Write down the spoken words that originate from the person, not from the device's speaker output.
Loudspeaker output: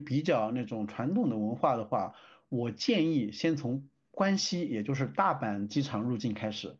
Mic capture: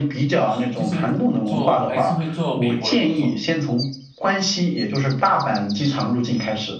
啊，就是做还是会做美国的工作，

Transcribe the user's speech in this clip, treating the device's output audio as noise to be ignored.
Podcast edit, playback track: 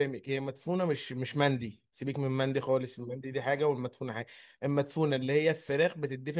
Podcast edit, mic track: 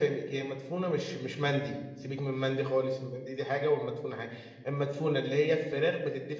none

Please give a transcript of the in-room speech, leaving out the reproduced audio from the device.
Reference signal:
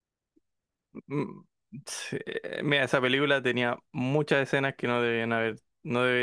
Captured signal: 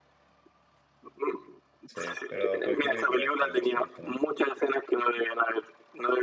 sí. Pero cualquier película de Star Wars te gusta más.

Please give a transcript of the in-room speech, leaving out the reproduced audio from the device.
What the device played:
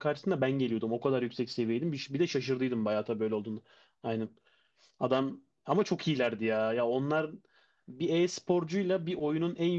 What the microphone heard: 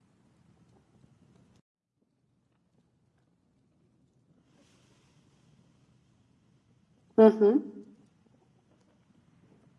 Hı hı.

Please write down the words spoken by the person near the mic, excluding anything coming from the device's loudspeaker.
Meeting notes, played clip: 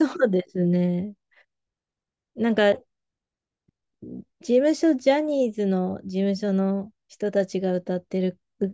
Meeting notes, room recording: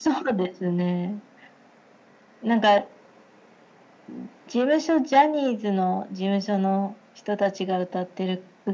none

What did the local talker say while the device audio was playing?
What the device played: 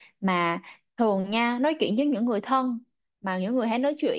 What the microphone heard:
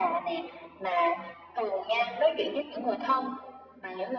none

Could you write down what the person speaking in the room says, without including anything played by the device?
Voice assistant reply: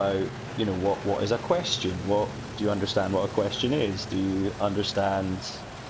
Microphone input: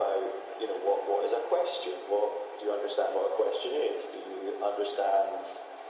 none

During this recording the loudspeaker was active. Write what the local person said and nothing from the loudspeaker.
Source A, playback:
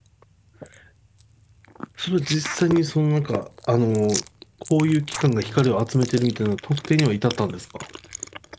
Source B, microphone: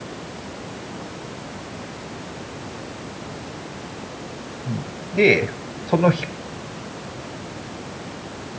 うん、で、そのひ、

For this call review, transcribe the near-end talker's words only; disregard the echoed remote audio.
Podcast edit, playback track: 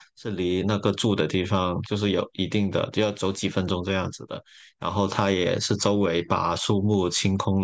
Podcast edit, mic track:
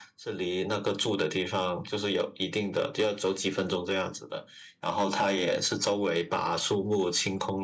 none

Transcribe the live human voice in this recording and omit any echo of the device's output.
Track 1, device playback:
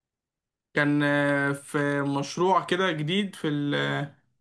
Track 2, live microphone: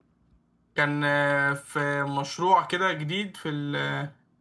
none

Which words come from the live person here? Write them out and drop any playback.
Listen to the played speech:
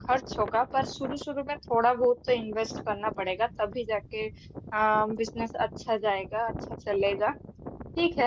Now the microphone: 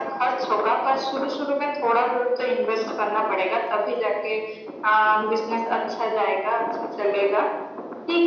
none

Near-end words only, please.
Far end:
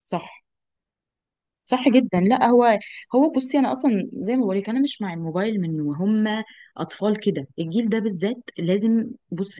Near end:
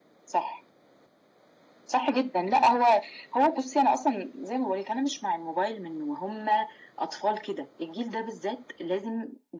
none

